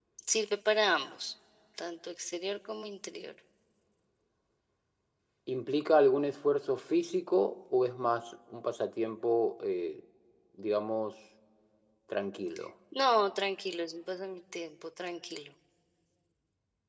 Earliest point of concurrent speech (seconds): none

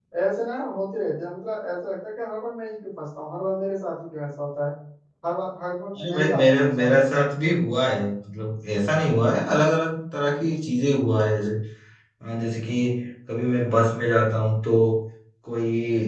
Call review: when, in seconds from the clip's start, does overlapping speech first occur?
6.0 s

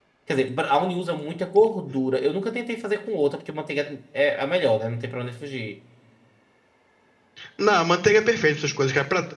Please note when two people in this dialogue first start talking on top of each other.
none

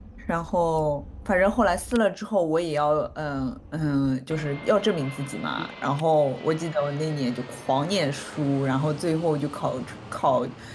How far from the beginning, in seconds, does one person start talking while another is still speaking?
none

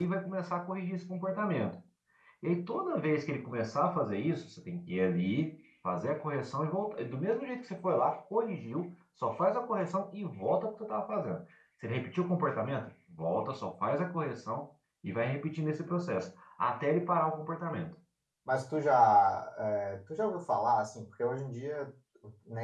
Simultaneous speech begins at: none

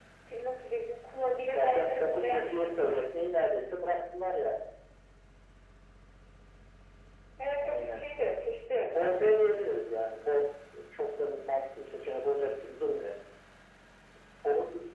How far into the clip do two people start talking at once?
1.5 s

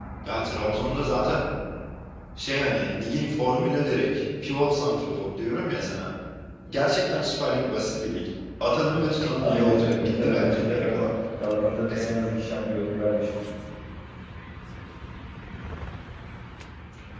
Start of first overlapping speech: 9.4 s

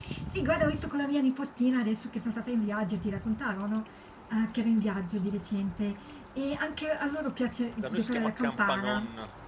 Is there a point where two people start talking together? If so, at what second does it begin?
7.8 s

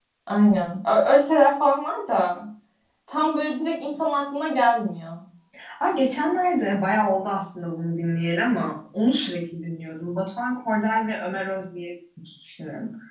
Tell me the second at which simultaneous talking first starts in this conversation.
none

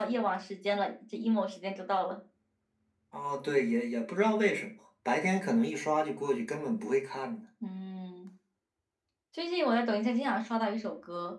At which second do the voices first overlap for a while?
none

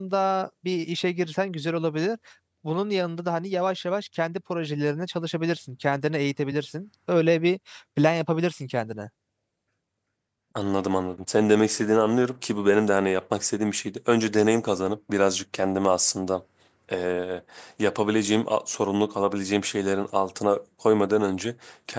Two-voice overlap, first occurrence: none

